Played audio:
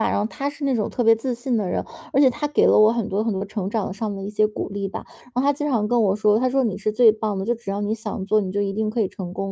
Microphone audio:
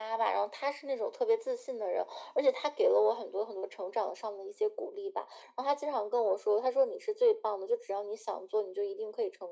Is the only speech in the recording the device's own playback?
Yes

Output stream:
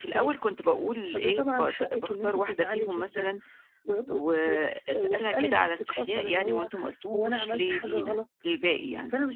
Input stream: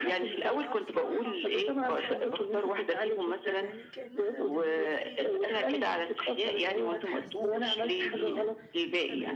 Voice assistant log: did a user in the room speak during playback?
Yes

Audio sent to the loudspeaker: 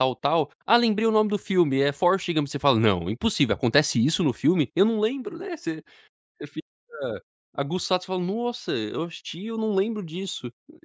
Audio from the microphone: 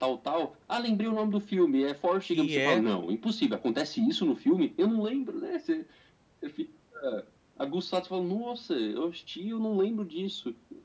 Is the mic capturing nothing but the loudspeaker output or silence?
No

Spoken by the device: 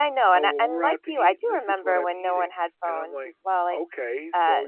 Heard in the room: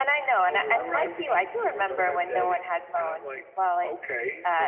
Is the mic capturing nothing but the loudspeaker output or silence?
No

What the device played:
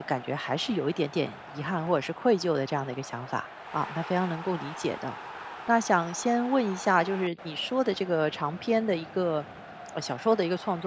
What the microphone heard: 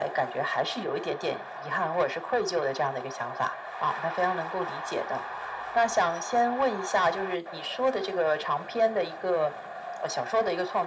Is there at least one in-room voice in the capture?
No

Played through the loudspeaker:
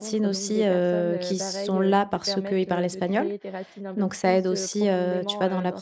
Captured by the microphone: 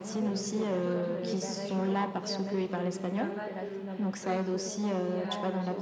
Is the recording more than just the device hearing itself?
Yes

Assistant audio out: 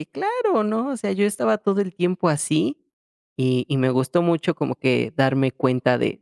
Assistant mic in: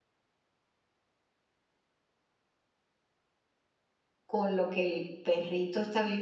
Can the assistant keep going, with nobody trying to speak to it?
No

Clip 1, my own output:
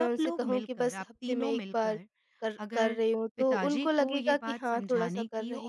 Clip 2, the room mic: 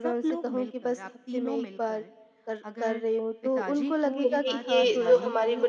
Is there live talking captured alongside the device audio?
Yes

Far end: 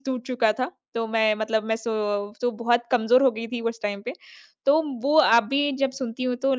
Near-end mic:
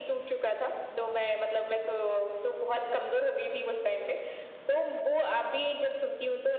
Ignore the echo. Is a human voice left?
No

